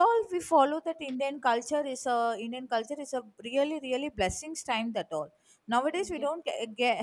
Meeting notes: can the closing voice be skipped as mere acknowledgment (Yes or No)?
Yes